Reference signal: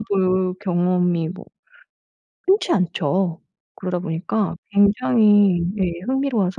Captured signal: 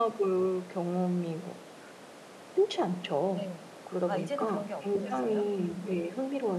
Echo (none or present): present